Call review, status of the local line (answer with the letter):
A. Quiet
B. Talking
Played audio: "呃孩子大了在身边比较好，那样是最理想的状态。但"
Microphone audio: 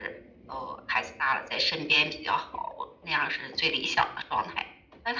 A